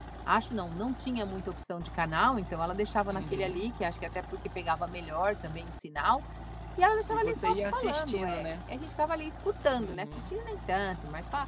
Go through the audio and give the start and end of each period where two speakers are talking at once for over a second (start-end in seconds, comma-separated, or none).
7.1-8.4